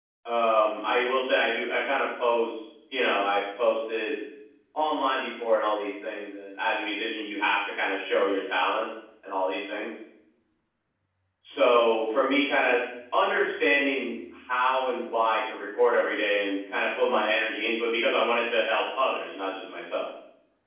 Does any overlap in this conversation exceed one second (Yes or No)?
No